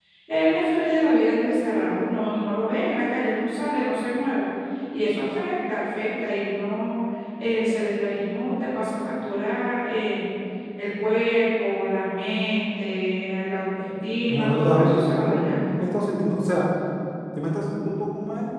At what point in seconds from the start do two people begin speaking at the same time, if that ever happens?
14.3 s

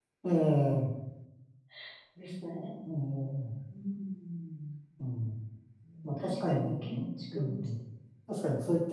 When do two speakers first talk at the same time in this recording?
6.2 s

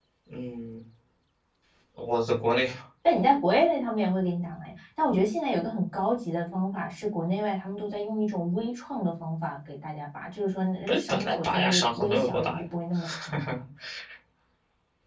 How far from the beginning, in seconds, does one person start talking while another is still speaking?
10.9 s

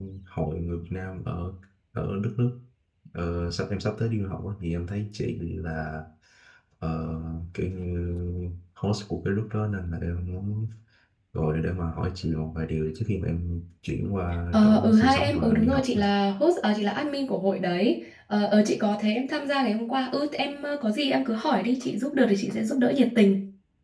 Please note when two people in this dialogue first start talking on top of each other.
14.5 s

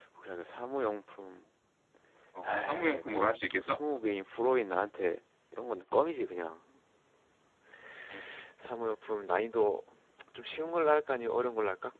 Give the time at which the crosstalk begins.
2.5 s

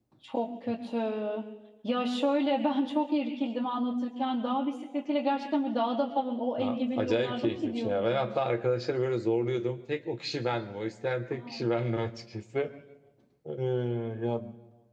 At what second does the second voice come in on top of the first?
6.6 s

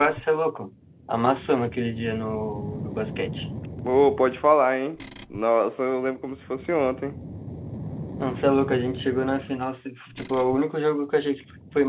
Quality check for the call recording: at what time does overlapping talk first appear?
none

